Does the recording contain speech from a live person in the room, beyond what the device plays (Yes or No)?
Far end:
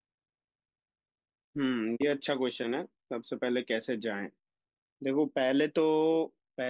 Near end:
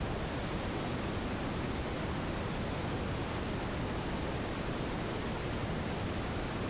No